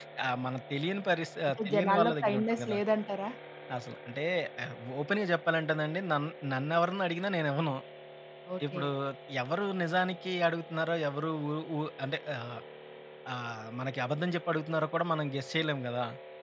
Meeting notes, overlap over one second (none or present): present